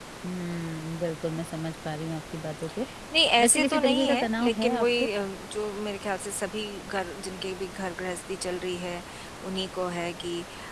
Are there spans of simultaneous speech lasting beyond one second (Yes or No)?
Yes